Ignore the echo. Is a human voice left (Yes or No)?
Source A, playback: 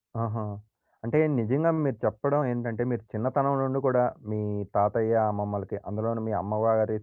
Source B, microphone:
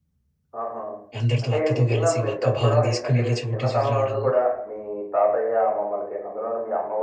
Yes